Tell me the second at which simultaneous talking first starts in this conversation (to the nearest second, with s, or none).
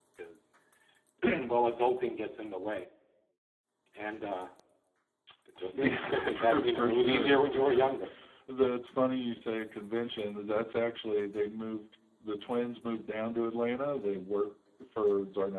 6 s